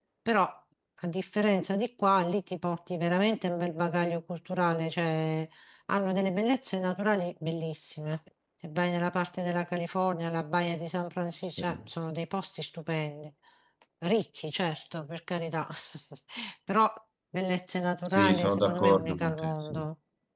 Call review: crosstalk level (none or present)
present